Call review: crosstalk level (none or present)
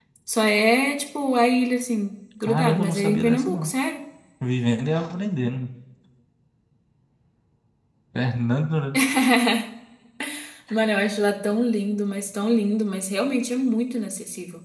present